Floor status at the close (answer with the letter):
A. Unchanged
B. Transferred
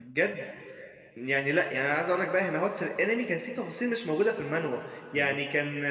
A